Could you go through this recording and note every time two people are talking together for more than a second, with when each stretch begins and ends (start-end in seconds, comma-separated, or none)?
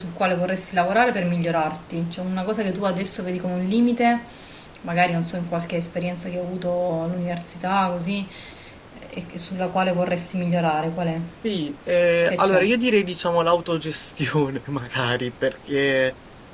none